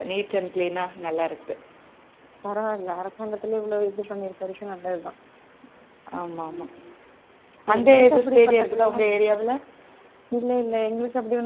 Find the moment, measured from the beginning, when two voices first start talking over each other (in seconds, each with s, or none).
7.8 s